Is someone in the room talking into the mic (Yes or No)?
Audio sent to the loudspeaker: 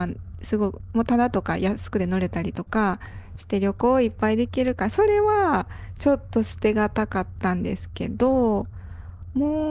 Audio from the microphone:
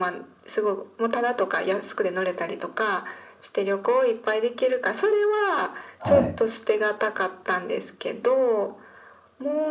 Yes